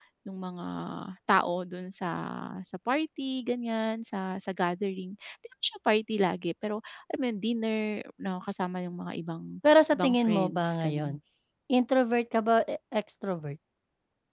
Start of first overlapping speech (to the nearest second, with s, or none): 10 s